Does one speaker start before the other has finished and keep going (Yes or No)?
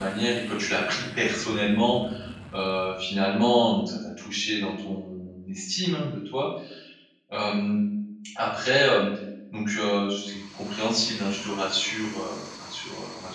No